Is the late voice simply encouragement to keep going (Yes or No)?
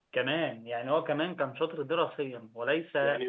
No